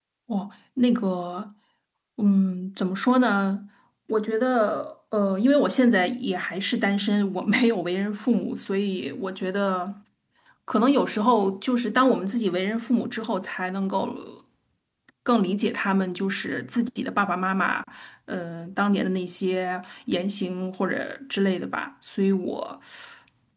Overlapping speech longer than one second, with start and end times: none

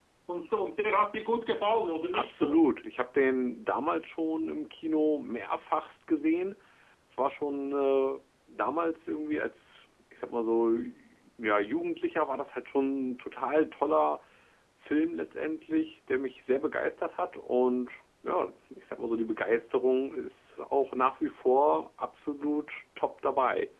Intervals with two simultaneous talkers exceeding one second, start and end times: none

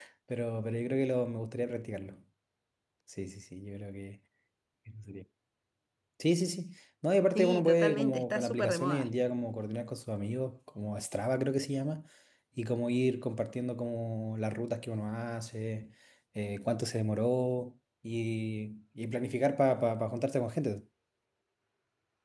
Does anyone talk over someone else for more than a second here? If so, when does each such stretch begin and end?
7.3-9.1

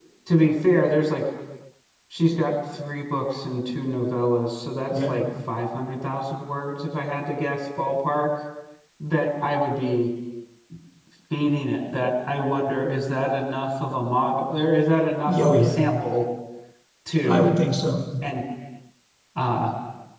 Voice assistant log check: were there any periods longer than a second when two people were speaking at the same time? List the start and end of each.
none

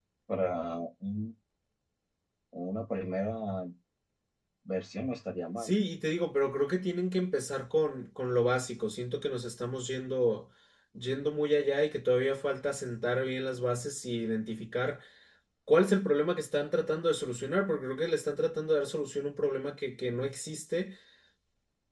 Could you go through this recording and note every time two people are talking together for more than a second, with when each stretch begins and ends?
none

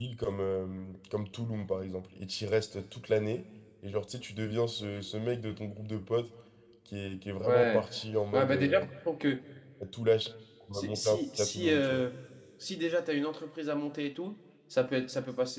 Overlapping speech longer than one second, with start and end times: 10.7-12.0

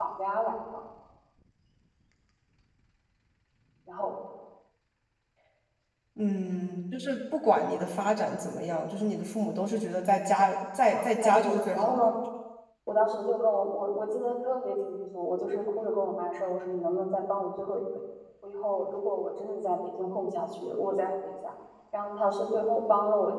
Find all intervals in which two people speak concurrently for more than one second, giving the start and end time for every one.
10.9-12.1

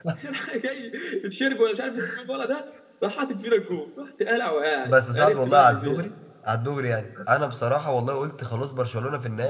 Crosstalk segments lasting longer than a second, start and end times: 4.8-6.1

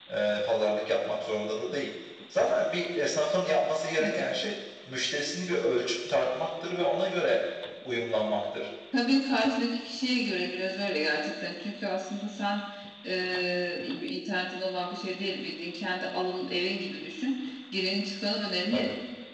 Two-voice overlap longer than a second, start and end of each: none

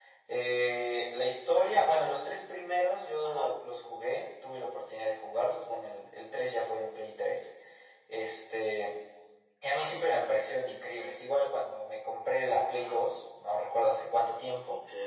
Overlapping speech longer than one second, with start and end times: none

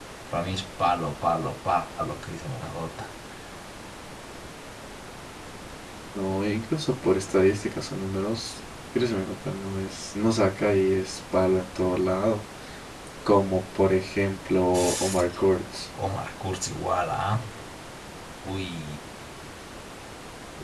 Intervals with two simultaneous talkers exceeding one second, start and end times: none

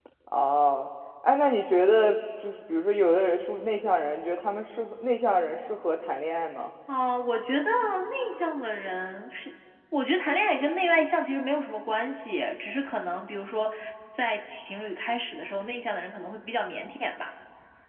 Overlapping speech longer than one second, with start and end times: none

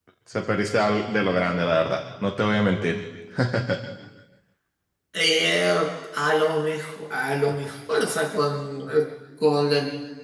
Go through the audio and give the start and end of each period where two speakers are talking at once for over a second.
none

